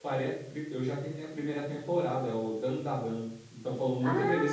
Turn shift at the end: Yes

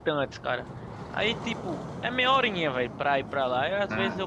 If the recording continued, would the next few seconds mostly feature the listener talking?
No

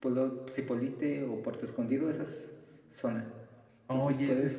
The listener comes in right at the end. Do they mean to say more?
Yes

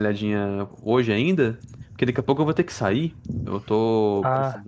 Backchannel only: Yes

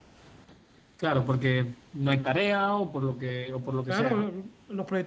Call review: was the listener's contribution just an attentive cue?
No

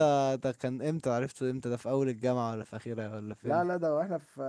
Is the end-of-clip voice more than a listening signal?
Yes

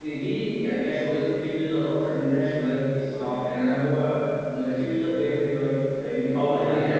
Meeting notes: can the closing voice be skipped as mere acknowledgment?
No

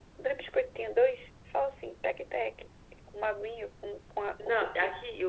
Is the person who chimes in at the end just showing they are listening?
No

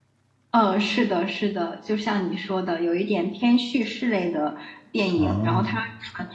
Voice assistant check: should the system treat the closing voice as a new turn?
No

